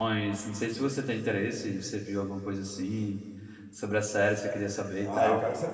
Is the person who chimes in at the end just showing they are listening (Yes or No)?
No